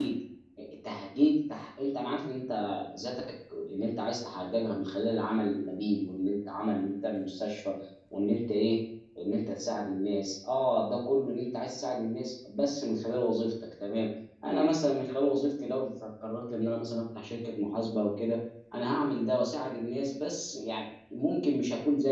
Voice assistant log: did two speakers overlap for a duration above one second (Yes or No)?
No